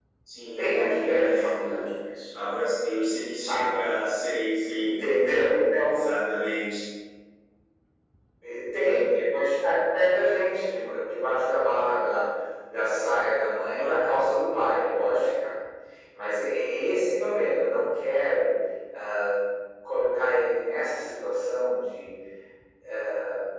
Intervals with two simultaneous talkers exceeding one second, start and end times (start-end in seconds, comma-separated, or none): 0.6-1.8